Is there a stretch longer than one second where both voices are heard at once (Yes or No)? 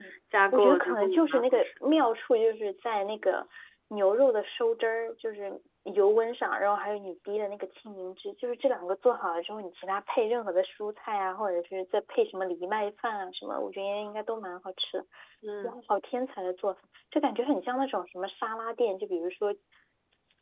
Yes